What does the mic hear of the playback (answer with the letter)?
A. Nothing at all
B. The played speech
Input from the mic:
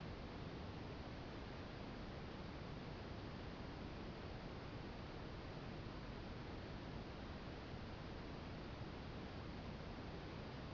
A